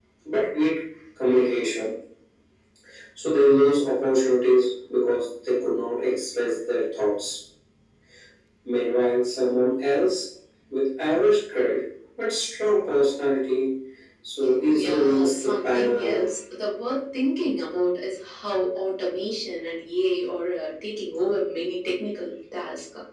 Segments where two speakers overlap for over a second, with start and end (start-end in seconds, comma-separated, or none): 14.7-16.3